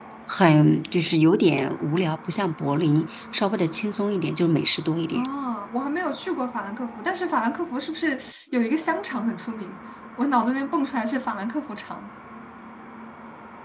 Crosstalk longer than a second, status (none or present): none